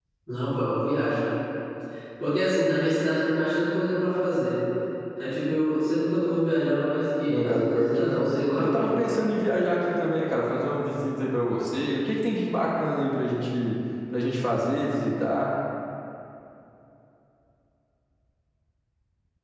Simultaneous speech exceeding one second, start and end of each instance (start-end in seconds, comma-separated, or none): 7.3-8.9